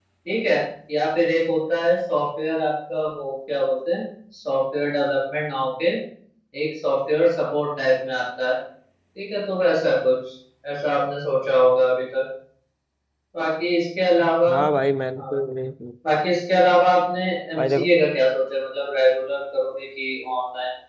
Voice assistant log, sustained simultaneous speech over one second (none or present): none